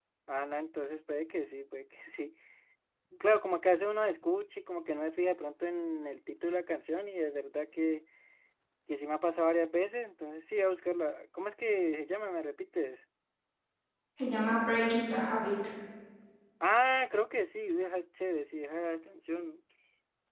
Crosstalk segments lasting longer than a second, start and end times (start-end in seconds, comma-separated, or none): none